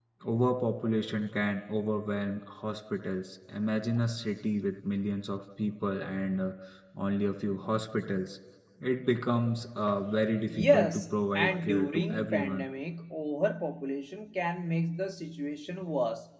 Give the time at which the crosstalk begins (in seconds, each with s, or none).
10.5 s